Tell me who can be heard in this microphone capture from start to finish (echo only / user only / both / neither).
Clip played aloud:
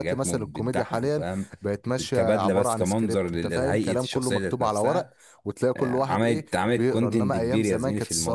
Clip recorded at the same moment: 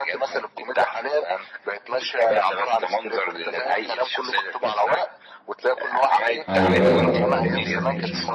both